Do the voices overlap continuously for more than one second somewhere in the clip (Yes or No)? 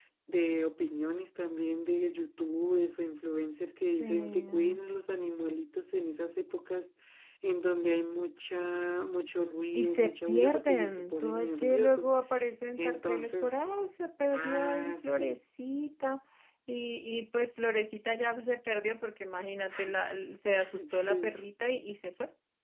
Yes